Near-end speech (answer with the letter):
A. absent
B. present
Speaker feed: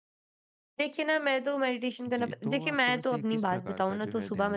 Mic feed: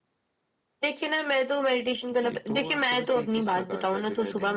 A